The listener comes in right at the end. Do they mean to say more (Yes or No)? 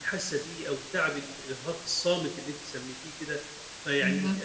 No